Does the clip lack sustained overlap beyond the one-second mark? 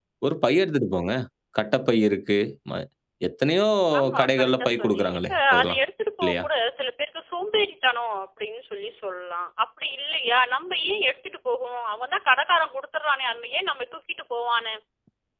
No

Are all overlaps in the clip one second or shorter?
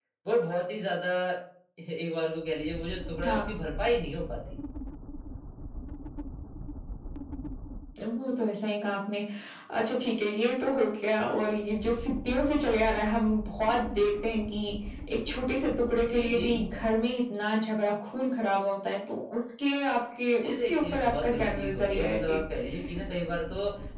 No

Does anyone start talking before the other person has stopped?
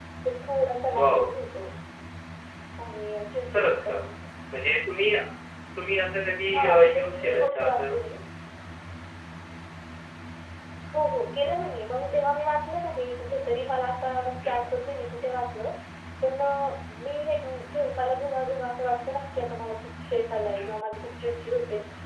Yes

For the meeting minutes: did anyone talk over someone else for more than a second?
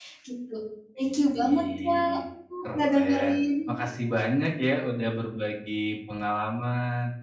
Yes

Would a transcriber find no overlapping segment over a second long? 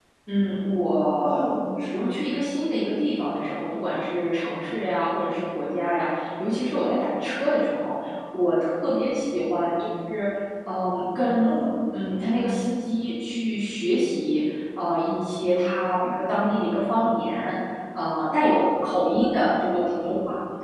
Yes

